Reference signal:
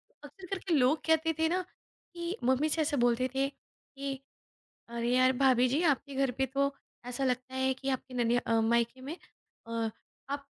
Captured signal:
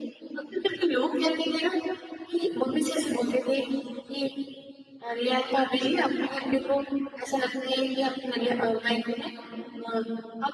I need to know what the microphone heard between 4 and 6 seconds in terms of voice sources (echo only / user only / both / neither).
echo only